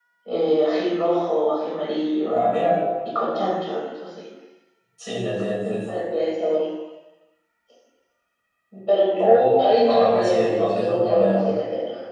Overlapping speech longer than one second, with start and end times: 9.2-11.5

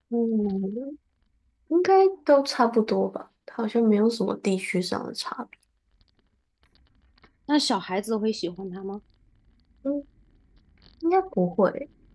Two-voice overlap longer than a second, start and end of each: none

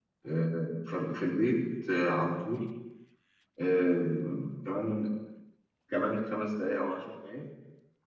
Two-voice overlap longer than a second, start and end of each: none

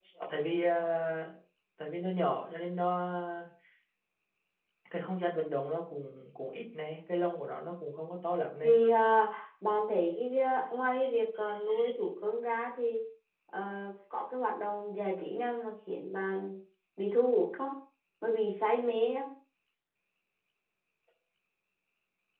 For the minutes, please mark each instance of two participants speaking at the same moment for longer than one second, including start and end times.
none

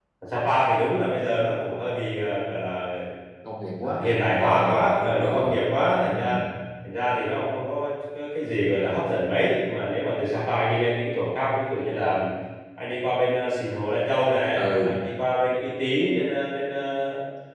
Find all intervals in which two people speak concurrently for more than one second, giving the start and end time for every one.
3.8-5.6

